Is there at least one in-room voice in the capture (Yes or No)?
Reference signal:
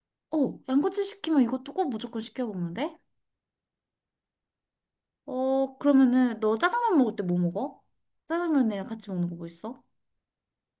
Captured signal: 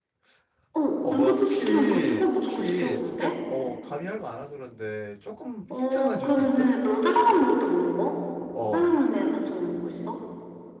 Yes